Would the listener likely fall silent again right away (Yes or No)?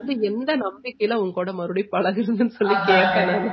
No